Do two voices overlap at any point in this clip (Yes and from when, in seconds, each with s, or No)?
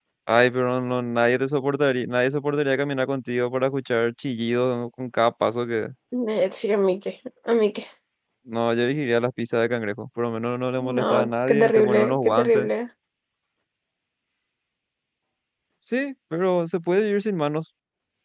Yes, from 10.8 s